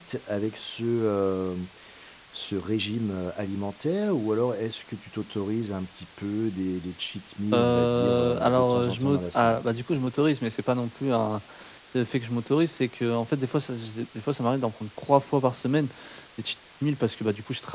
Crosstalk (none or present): present